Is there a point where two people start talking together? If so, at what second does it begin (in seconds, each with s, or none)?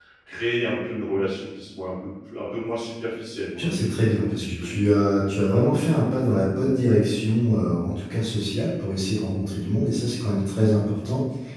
3.6 s